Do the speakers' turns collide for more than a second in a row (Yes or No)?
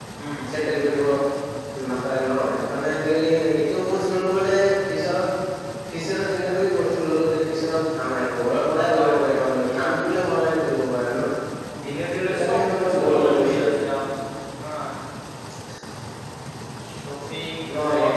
Yes